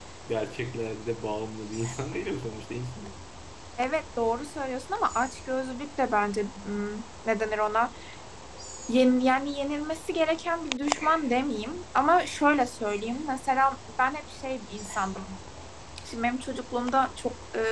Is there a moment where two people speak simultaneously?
No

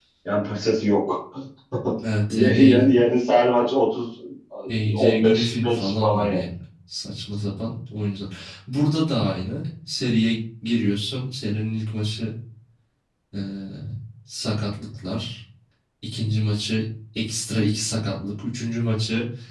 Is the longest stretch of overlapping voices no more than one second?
No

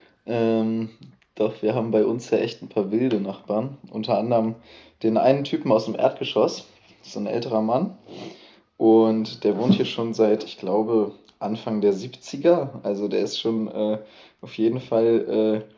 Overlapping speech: No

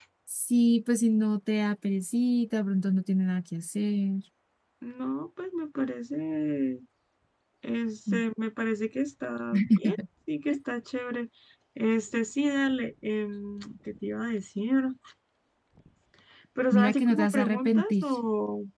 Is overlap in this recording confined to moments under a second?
No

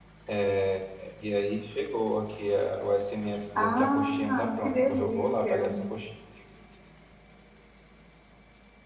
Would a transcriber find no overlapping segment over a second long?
No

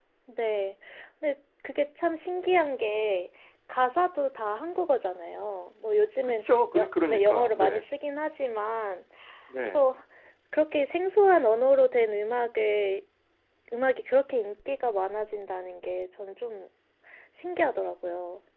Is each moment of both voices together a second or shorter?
No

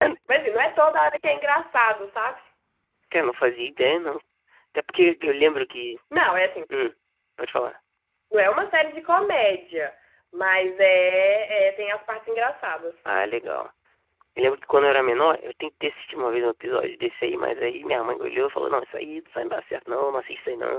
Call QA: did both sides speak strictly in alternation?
Yes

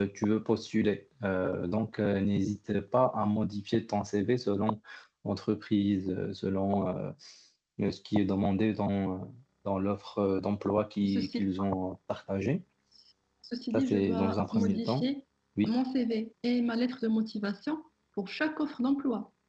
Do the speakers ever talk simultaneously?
Yes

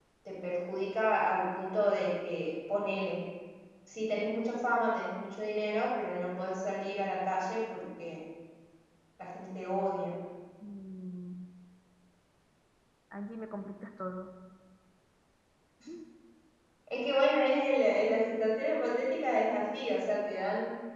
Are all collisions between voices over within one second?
Yes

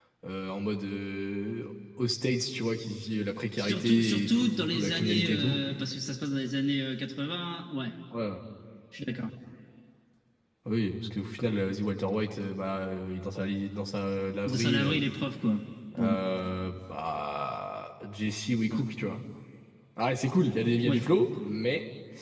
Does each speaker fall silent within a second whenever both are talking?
No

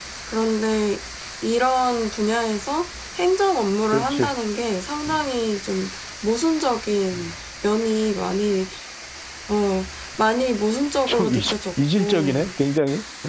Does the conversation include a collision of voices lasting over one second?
Yes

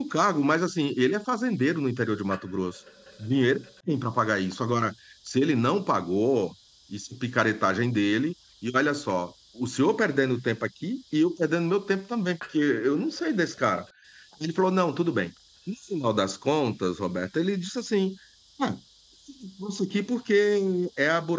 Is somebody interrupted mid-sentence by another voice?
No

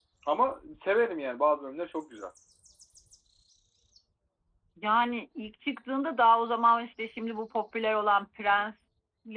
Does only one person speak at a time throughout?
Yes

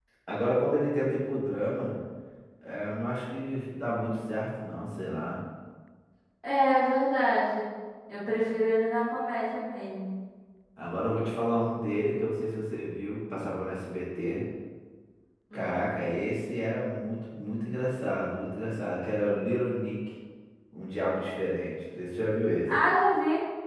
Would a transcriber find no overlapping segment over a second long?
Yes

